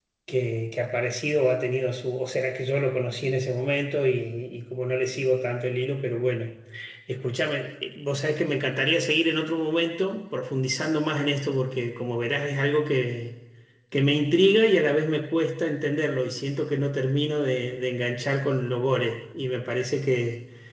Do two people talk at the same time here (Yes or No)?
No